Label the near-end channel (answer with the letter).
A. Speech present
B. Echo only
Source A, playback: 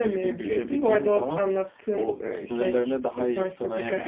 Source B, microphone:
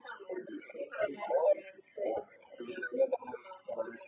B